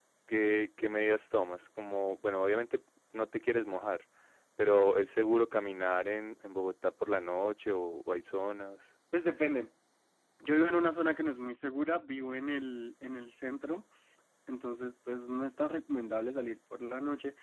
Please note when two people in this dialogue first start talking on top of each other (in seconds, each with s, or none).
none